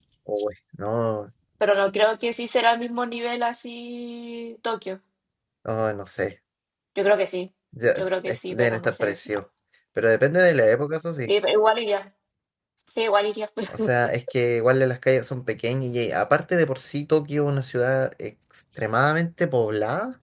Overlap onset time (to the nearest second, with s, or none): 8 s